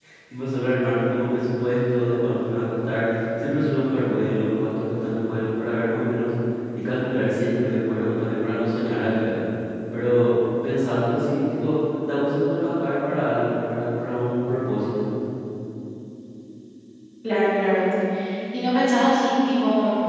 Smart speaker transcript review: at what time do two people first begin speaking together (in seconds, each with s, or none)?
none